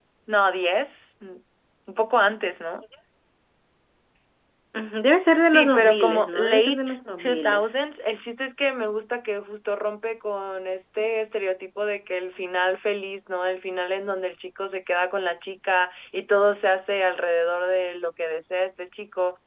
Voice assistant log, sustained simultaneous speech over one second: present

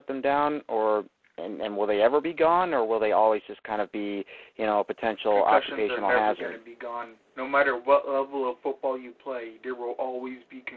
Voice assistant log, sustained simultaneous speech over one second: present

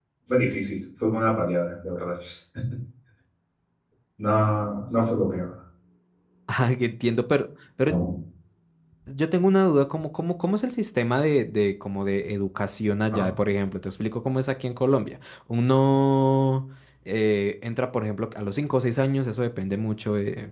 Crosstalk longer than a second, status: none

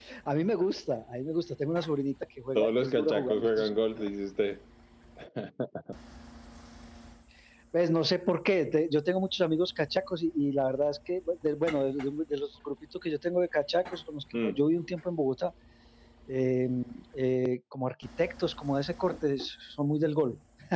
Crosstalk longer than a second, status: present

